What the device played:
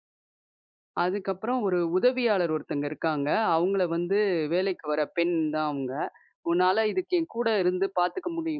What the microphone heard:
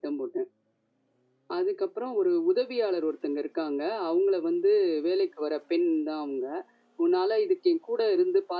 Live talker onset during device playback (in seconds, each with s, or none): none